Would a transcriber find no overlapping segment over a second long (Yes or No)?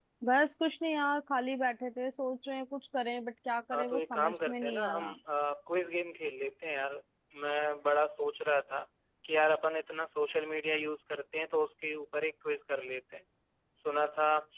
No